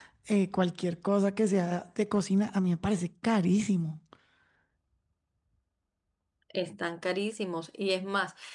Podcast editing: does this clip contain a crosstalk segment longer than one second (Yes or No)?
No